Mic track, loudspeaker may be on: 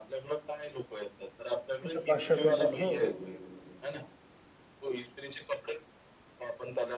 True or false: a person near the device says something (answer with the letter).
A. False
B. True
B